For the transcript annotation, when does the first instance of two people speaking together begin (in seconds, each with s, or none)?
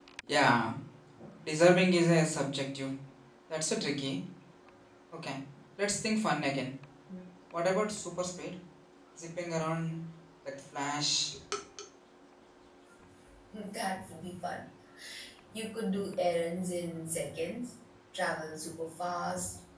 none